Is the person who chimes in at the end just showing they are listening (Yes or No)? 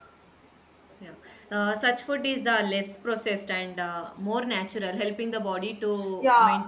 No